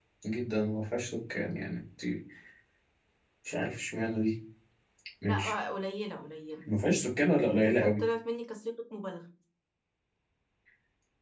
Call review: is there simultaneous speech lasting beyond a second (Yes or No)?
No